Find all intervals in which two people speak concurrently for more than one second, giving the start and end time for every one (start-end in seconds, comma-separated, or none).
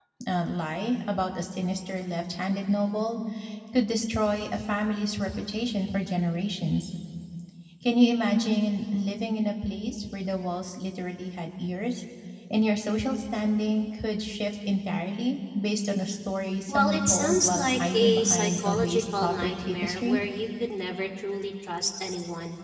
16.7-20.2